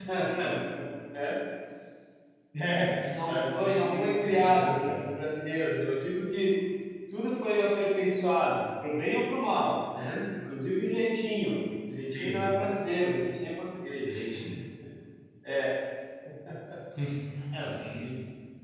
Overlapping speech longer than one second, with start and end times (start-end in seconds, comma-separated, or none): 2.9-5.0